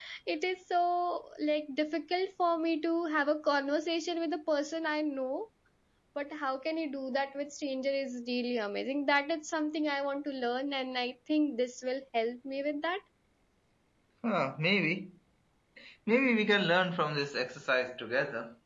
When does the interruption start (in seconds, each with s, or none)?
none